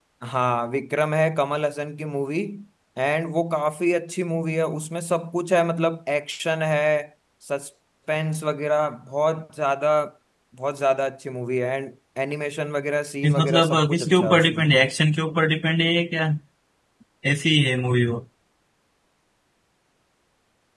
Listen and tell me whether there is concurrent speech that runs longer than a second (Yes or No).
Yes